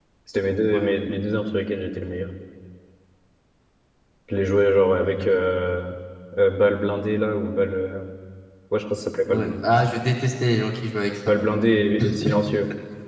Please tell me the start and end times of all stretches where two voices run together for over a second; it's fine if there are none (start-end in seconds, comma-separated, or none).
none